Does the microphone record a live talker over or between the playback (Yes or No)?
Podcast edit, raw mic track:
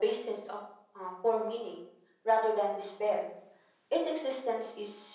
No